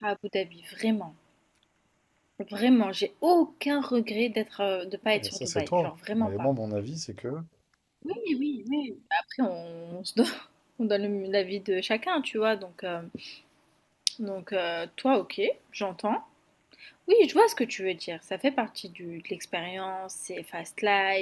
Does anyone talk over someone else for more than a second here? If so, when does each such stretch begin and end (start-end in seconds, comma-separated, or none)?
5.1-6.5